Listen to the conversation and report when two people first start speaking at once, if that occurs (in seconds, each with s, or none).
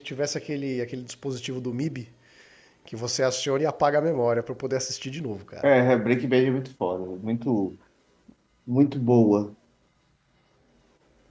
none